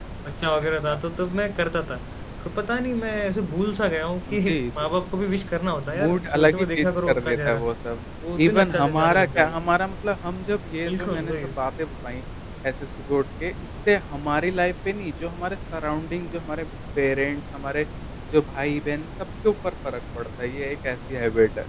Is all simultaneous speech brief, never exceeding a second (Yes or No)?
No